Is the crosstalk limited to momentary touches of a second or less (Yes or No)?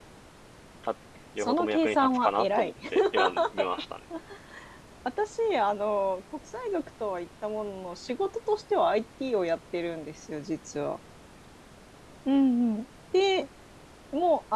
No